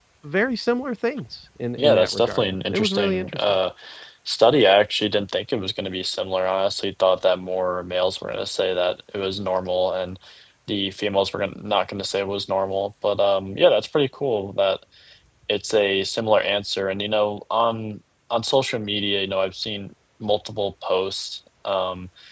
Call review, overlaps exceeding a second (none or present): present